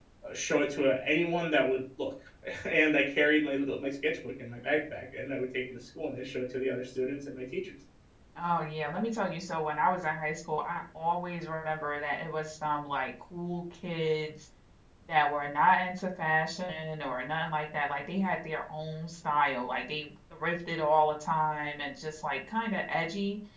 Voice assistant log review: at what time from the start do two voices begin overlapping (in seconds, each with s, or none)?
none